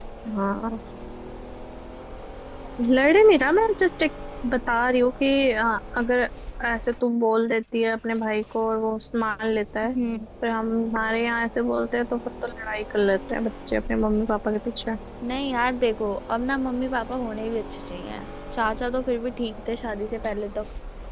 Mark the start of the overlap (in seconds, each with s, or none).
none